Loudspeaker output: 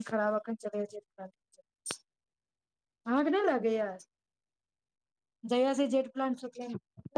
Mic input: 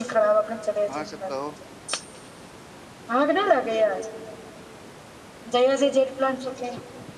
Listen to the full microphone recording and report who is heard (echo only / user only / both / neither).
both